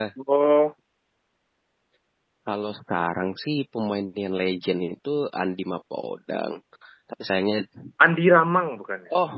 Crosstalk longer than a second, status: none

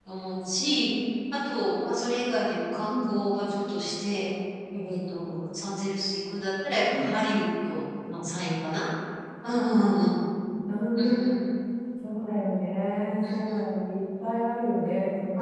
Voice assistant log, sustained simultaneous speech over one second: none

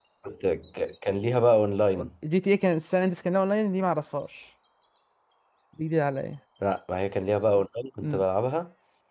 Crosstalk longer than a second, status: none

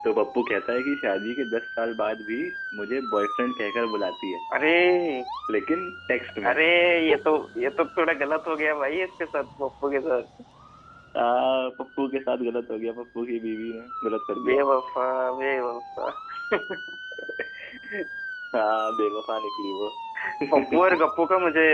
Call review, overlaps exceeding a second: none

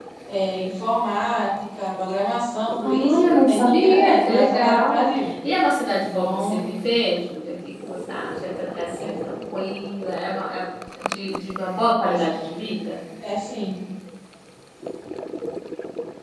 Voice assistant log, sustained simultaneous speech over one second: present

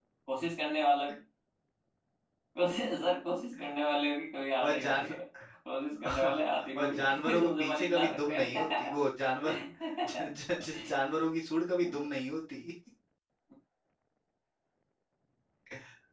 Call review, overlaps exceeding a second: present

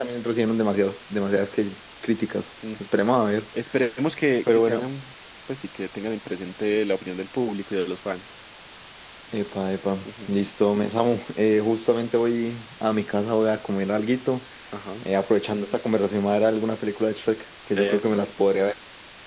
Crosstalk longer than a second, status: none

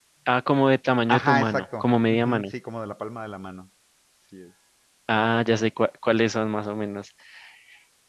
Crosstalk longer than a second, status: present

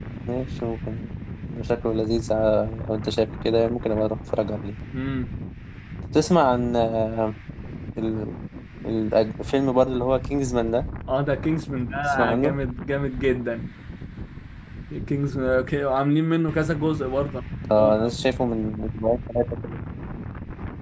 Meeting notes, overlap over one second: none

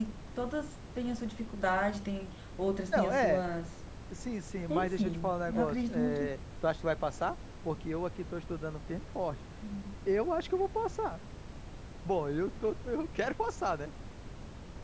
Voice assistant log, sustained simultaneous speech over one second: present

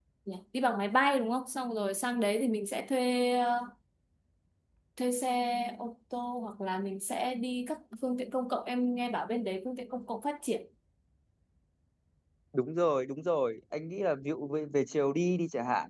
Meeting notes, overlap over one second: none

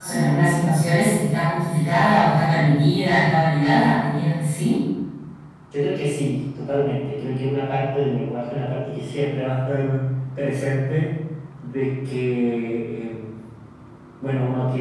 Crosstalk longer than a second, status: none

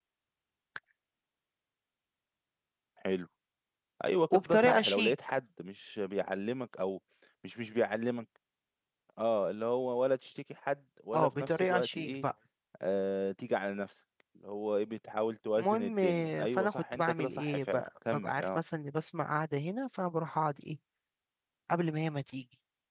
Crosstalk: present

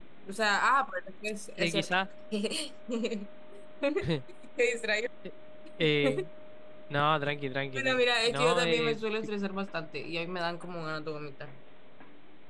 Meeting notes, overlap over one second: present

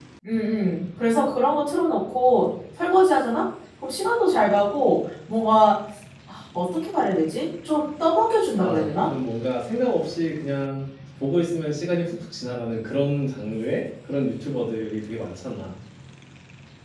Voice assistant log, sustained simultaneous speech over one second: none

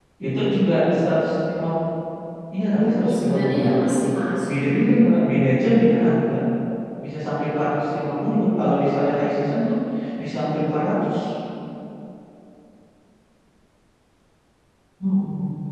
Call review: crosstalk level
present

